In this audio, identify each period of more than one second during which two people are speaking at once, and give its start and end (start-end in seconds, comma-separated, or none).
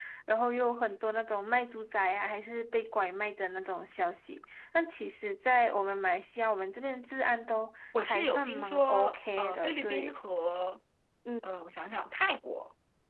8.0-10.1